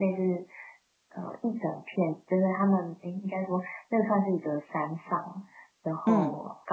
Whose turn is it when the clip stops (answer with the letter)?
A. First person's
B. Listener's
A